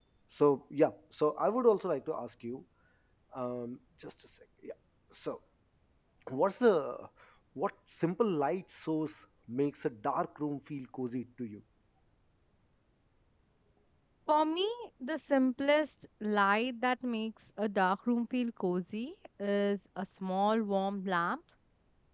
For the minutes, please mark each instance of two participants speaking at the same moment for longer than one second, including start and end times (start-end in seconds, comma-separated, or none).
none